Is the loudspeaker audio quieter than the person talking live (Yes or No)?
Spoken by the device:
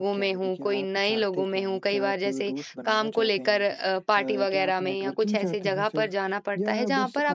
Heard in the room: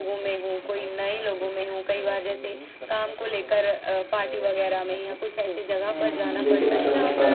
Yes